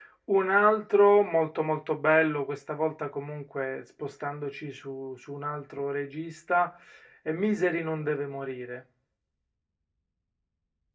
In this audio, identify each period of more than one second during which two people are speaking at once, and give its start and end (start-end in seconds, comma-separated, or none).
none